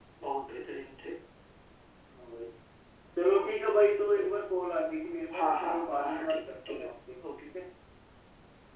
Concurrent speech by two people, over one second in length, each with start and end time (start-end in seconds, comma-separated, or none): 5.3-6.8